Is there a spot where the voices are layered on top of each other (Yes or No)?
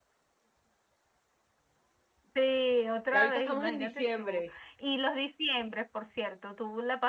Yes